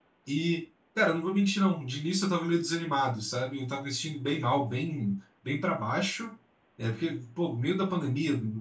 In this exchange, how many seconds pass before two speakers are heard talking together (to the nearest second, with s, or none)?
none